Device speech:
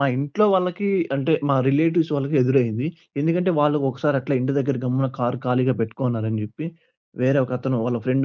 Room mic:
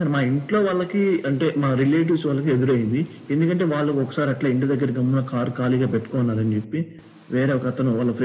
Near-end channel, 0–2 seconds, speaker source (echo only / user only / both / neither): echo only